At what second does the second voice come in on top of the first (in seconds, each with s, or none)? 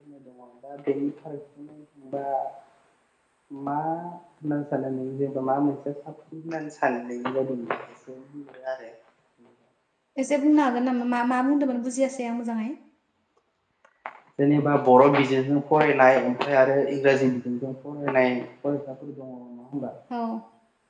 none